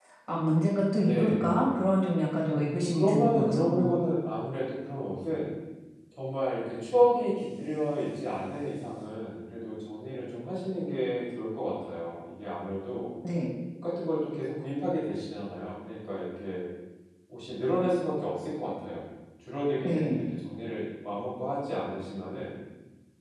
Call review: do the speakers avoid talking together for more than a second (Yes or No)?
No